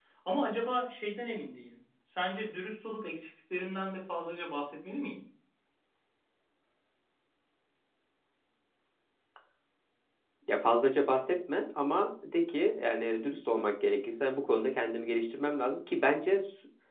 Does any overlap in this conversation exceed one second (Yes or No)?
No